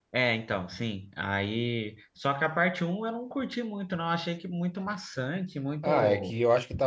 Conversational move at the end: taking over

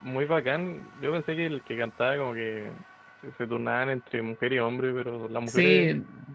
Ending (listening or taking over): taking over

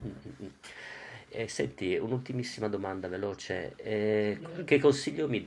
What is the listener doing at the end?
listening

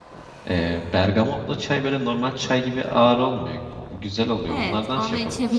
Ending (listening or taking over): taking over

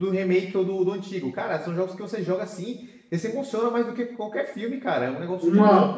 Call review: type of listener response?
taking over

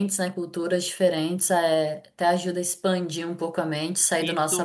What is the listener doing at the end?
taking over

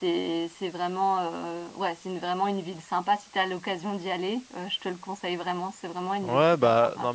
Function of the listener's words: taking over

